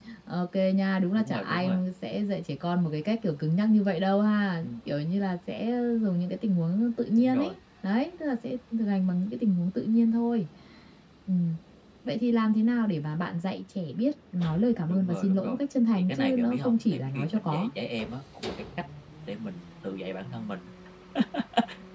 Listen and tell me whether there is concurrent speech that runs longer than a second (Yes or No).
Yes